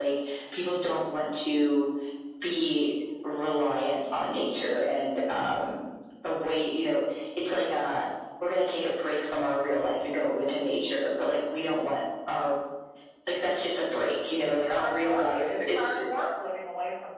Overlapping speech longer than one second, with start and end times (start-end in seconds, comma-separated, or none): 14.4-16.0